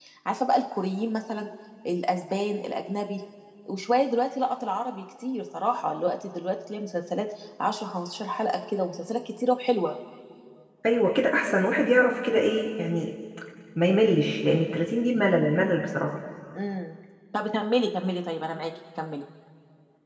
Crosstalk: none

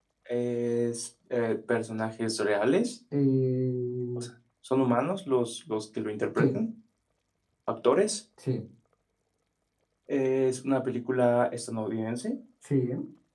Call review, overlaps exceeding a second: none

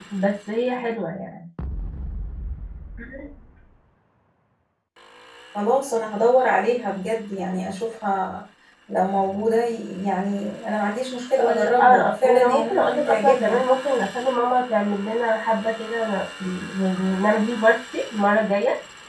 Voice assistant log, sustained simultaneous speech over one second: present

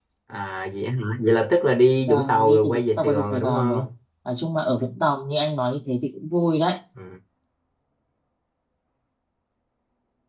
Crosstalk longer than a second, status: present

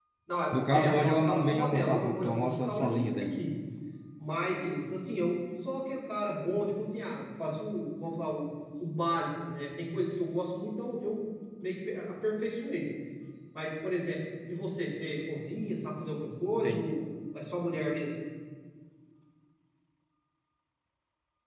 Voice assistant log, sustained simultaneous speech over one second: present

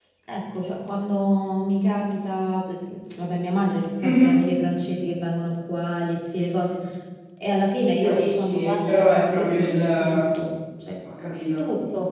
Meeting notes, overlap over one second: present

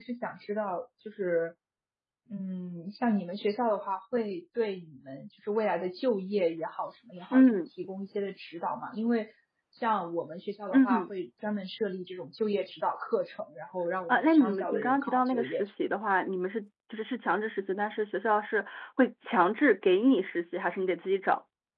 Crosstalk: present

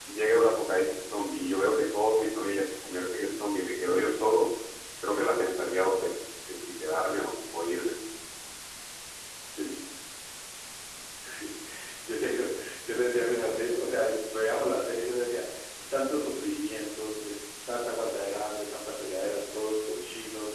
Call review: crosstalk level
none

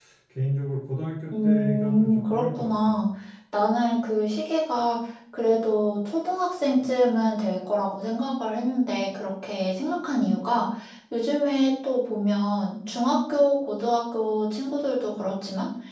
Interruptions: present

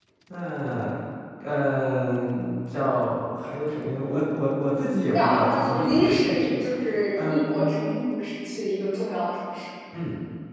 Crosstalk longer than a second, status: present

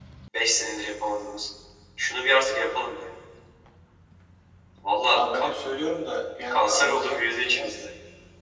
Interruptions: present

